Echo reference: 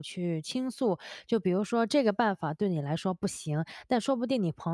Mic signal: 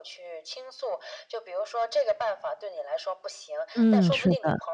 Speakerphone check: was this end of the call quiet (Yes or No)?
No